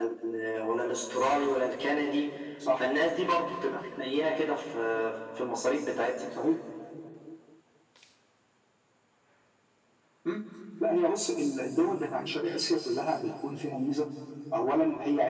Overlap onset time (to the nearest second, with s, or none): none